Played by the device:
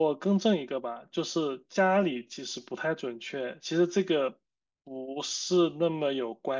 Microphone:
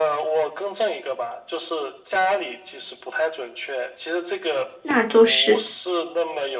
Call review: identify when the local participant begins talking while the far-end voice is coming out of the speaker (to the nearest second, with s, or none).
5 s